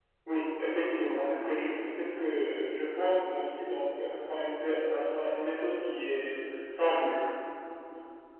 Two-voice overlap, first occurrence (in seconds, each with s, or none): none